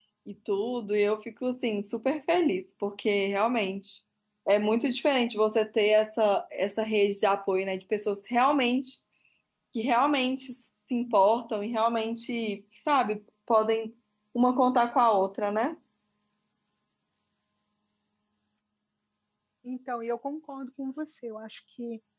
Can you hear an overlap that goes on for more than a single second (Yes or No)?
No